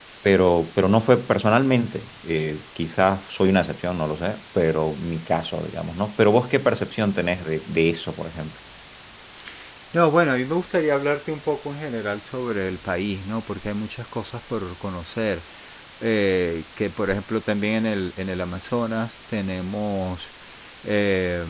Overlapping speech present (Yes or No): No